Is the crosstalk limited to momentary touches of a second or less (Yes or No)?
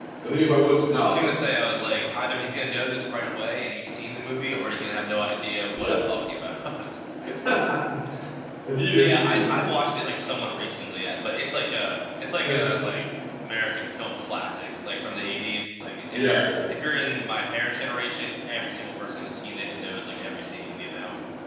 Yes